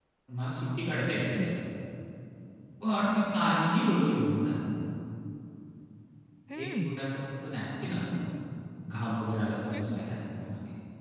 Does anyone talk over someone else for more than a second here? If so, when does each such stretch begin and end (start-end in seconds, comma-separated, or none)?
none